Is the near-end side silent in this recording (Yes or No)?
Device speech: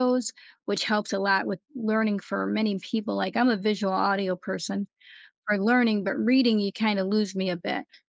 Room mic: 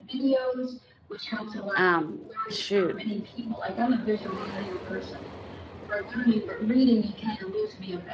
No